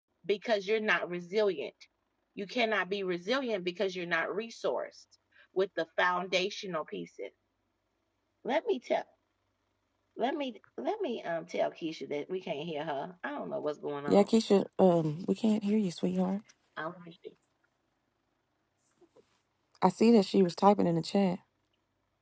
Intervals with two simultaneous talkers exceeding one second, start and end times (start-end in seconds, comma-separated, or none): none